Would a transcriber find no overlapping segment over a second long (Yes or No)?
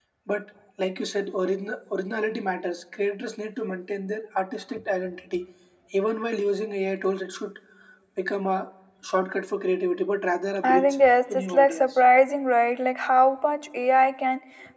No